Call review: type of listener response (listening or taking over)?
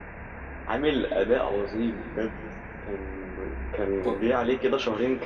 listening